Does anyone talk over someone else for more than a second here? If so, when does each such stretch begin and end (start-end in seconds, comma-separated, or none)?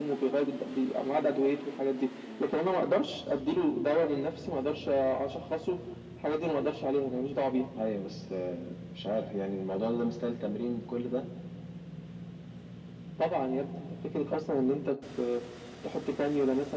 none